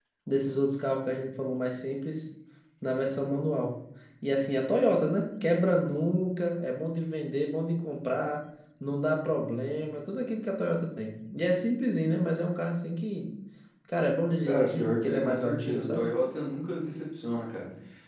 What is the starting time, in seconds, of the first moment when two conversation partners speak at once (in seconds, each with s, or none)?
14.4 s